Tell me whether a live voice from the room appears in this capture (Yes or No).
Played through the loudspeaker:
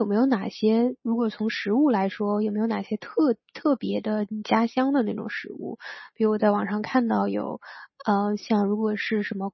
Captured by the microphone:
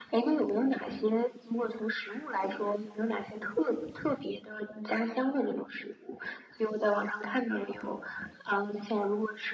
No